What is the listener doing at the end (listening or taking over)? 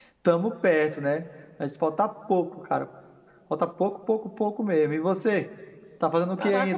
taking over